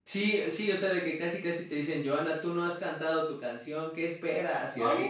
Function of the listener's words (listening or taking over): taking over